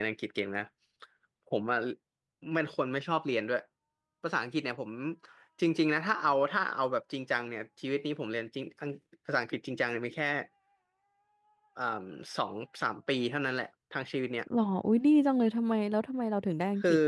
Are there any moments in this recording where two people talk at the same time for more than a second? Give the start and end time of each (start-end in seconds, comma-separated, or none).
none